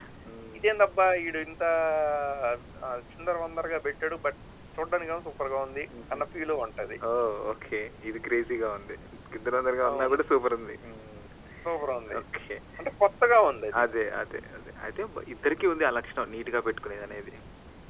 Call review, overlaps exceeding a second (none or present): none